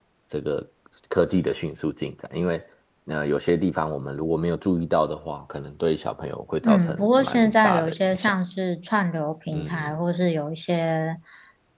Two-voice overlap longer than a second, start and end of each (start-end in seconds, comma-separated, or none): 6.6-8.3